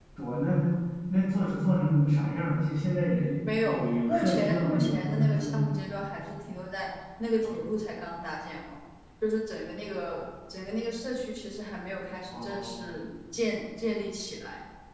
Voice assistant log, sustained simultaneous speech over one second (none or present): present